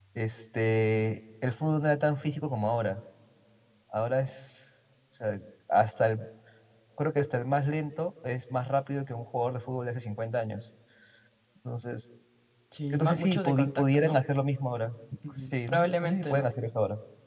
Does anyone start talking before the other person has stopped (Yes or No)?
Yes